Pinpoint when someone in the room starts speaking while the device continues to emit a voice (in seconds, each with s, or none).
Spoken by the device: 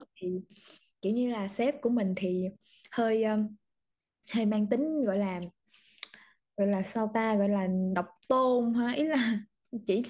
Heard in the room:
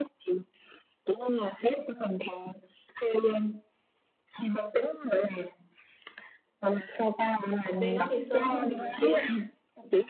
7.6 s